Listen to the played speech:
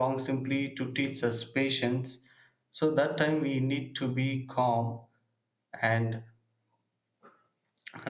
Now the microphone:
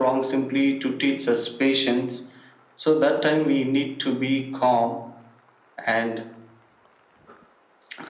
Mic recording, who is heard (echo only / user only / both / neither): echo only